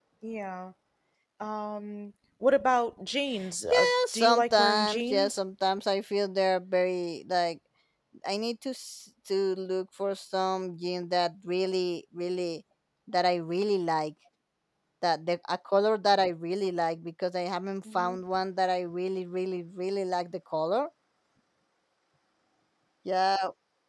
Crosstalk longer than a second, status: present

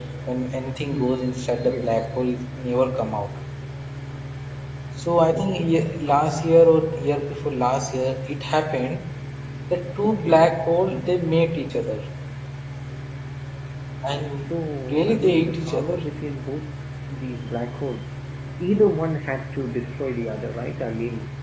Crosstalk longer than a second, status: present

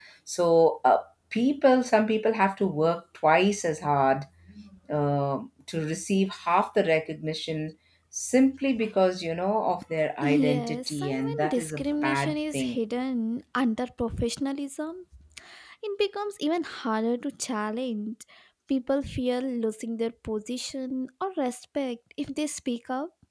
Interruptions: present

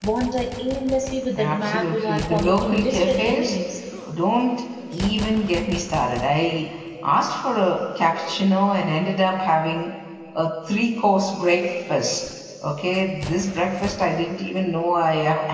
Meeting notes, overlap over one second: present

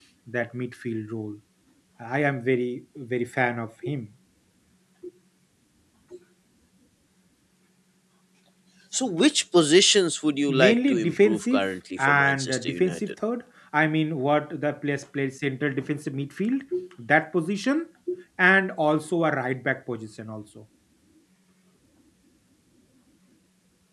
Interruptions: present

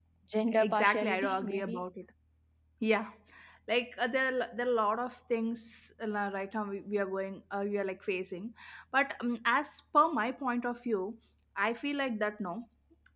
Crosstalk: present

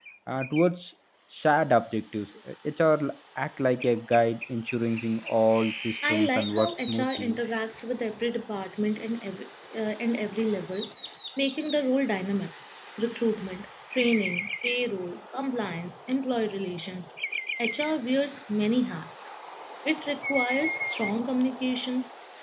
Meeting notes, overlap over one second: present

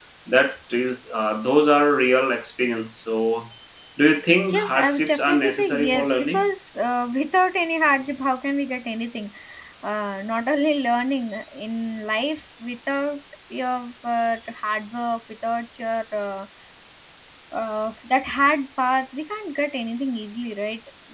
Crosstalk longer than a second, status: present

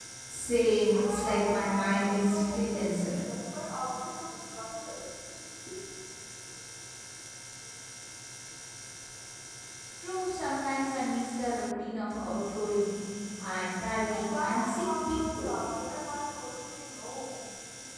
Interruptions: present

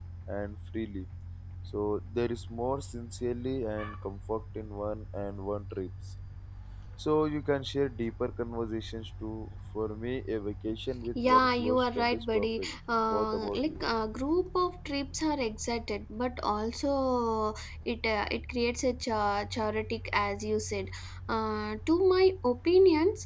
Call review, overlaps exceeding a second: present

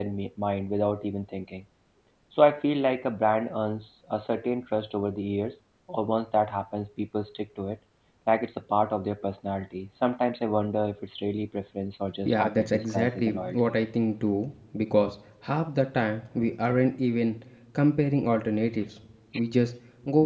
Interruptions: present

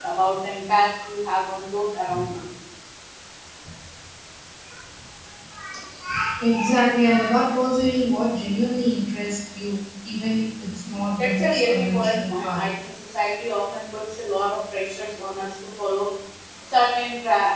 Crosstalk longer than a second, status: present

